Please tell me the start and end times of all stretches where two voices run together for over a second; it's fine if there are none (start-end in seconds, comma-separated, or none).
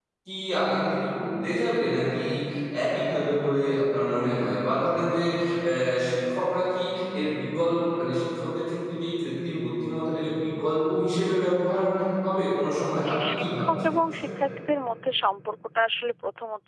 13.1-14.3